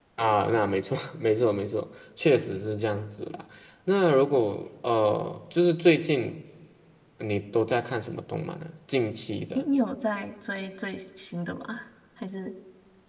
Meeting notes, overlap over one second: none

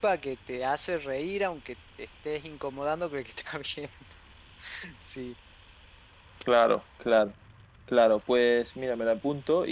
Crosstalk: none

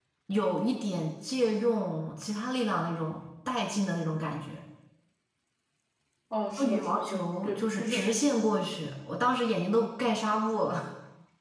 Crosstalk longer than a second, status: present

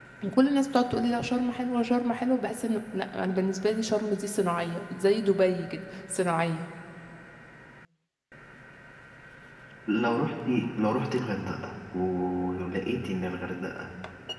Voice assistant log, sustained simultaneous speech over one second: none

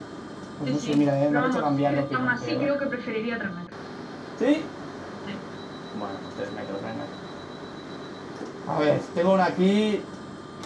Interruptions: present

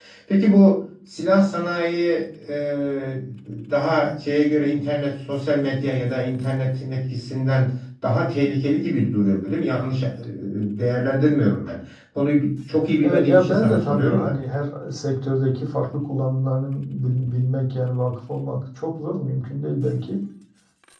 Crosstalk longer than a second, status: present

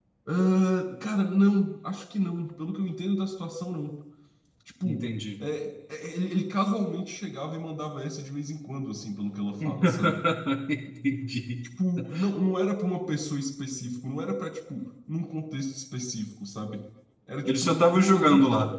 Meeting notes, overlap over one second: present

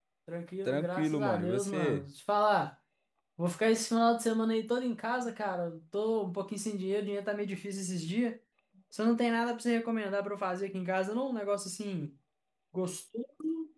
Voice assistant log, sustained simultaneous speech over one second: present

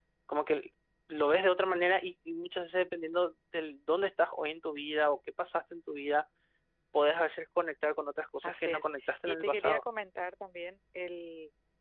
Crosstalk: present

